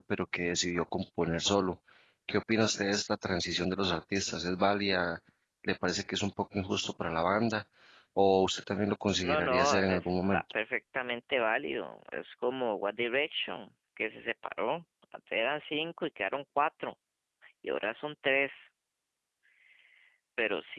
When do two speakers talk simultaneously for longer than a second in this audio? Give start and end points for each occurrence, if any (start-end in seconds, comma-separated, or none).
9.2-10.4